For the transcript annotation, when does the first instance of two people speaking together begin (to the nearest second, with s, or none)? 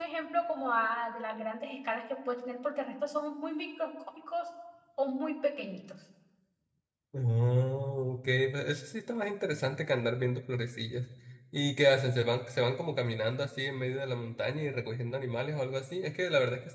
none